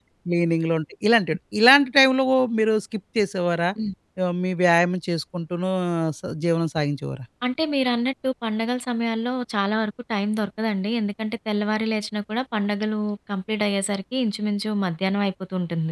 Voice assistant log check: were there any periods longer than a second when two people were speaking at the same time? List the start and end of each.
none

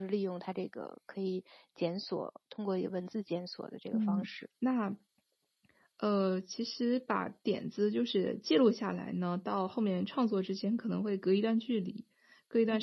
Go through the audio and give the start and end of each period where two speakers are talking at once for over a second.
none

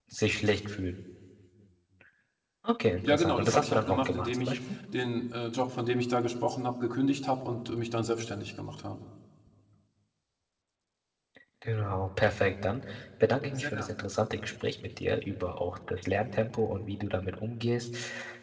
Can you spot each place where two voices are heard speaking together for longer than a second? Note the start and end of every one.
3.0-4.5

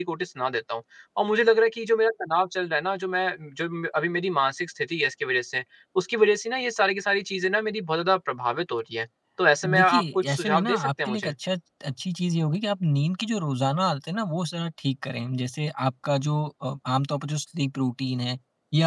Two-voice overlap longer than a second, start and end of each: 9.6-11.3

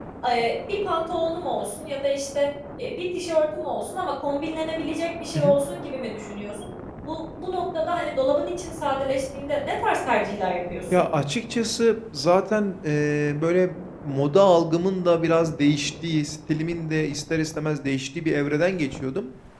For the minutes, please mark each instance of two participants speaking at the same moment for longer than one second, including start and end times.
none

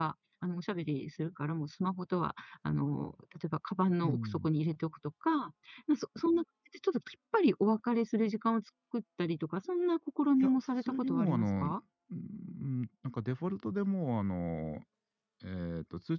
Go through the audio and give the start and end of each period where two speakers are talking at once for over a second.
10.4-11.7

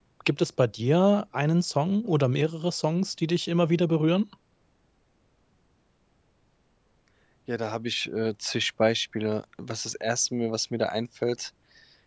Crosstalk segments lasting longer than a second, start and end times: none

